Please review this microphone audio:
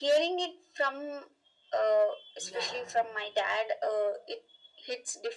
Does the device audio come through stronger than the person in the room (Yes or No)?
Yes